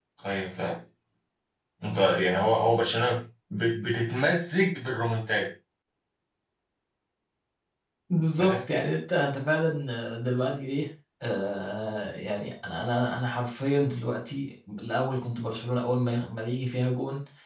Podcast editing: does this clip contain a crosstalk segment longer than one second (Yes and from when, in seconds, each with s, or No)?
No